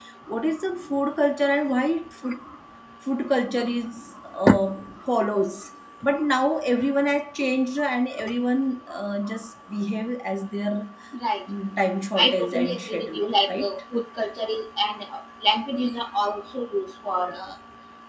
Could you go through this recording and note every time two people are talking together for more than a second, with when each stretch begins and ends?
12.2-13.7

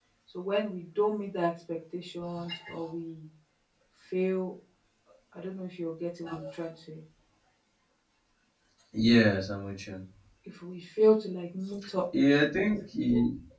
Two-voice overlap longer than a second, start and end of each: none

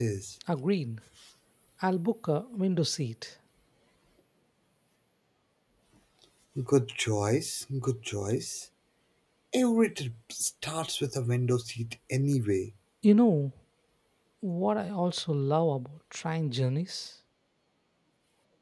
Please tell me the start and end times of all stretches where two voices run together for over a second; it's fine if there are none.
none

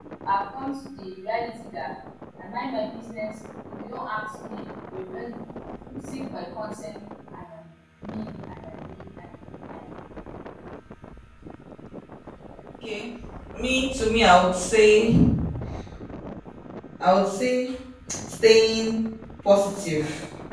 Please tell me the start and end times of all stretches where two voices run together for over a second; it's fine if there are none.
none

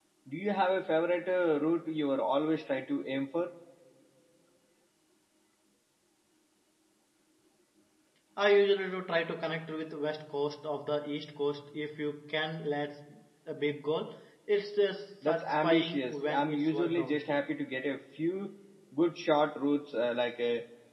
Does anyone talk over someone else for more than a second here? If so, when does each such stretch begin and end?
15.2-17.2

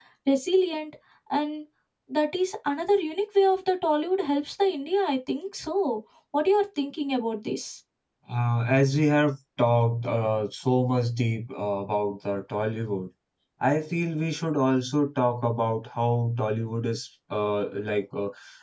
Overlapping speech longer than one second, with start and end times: none

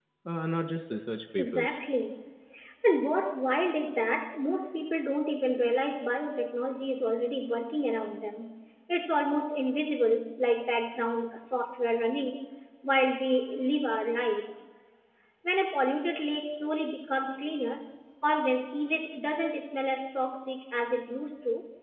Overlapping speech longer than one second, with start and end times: none

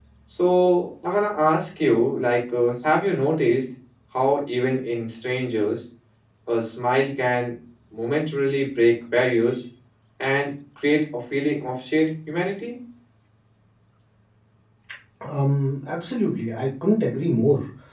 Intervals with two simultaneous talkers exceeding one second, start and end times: none

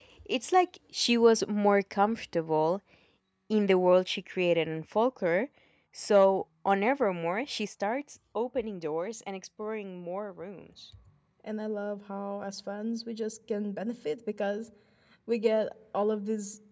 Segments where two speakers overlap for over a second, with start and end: none

